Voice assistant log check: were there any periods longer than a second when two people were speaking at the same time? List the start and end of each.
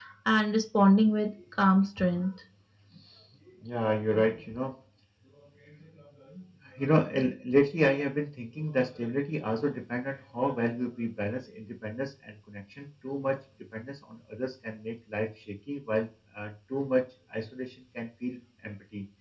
none

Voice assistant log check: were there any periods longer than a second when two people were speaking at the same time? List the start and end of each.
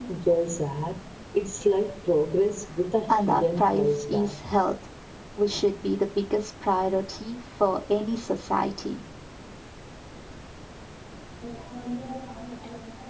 3.1-4.4

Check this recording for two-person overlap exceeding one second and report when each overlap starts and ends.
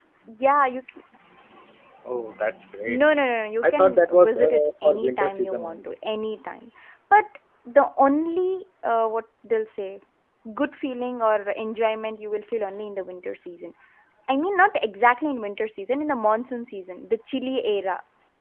3.6-6.0

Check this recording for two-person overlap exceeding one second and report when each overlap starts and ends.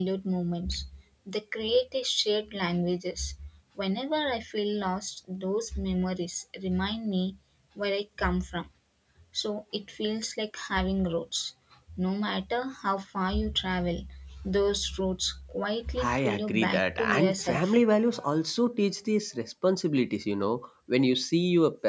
16.0-17.8

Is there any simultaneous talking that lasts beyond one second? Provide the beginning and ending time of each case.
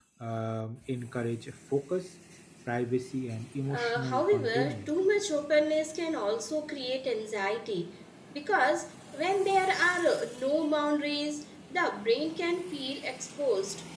3.7-4.9

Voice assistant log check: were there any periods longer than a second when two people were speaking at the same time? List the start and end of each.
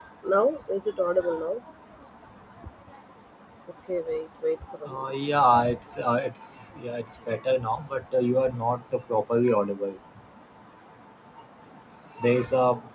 none

